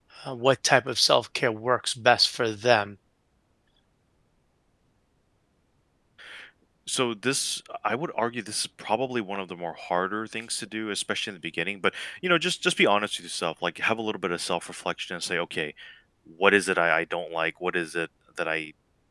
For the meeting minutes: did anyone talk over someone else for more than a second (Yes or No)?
No